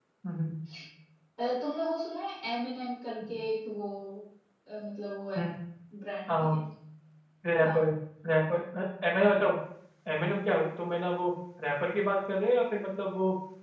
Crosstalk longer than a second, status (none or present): none